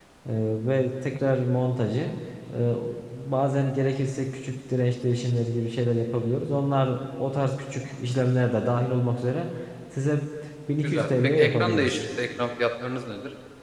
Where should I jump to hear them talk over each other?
10.8 s

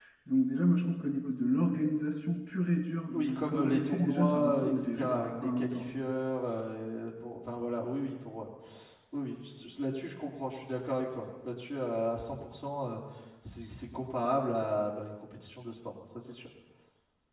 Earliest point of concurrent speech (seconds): 3.1 s

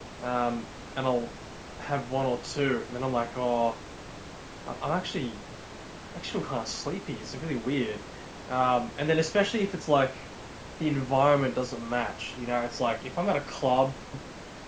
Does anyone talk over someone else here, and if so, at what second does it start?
none

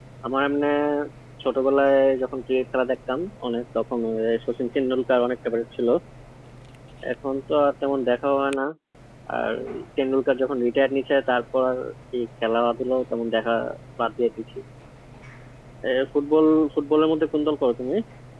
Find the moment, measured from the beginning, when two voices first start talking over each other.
none

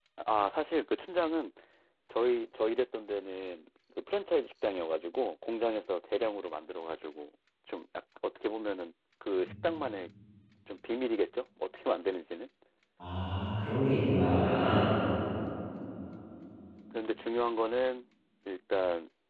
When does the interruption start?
none

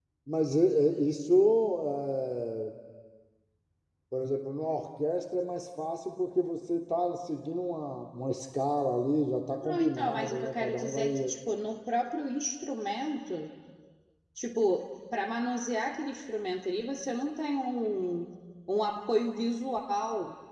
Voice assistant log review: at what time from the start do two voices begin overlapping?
9.6 s

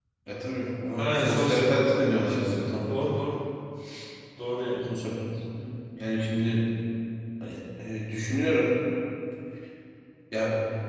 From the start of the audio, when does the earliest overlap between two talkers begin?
1.0 s

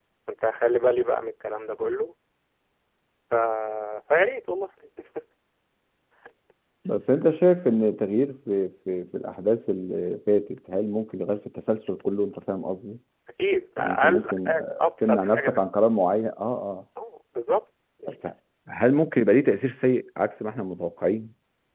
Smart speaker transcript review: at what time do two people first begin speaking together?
13.8 s

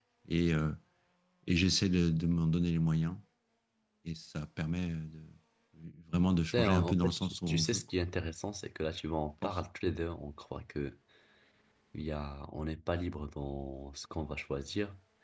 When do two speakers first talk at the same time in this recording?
6.5 s

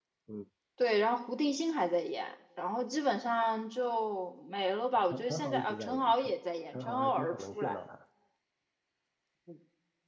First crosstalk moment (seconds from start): 5.1 s

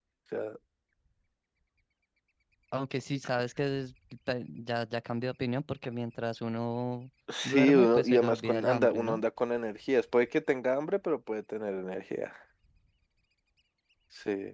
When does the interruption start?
7.3 s

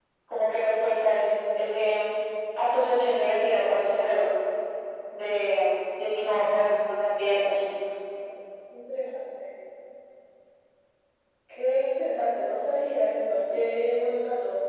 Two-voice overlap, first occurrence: none

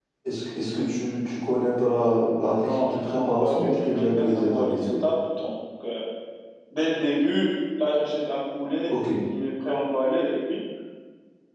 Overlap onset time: 2.6 s

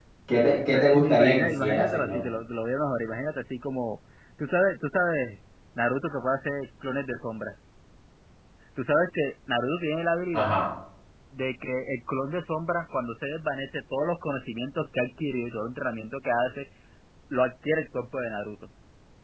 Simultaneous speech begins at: 0.7 s

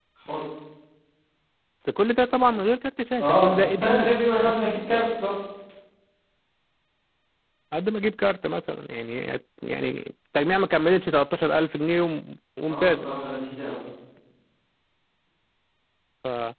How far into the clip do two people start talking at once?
3.2 s

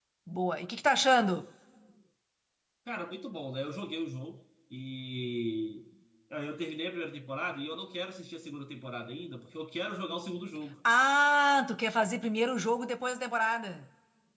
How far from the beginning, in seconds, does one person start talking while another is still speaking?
none

